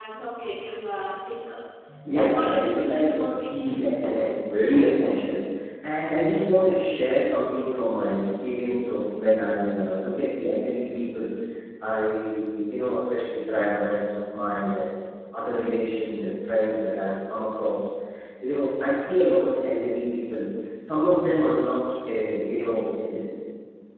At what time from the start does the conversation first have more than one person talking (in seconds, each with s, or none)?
2.3 s